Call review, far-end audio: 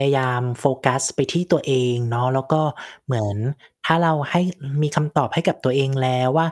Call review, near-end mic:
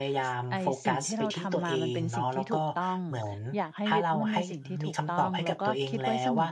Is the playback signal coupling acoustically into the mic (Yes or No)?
Yes